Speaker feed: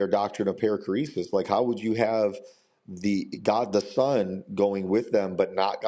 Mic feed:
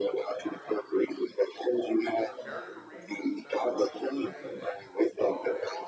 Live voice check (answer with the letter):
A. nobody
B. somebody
B